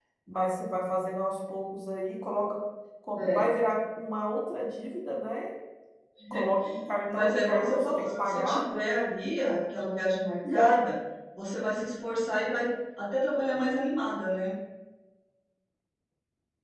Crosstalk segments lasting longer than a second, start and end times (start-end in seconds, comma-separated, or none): 7.1-8.6